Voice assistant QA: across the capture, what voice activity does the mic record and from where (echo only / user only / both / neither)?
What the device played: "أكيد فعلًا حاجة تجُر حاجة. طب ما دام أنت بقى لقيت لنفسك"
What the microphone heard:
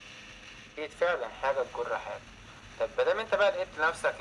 echo only